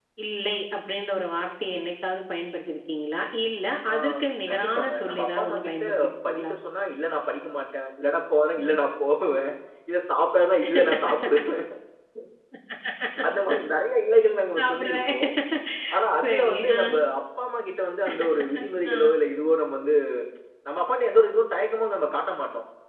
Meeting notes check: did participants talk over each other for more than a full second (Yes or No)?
Yes